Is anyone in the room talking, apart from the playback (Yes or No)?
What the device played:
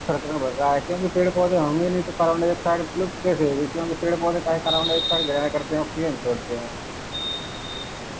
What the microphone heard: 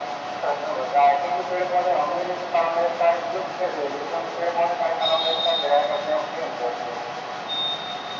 No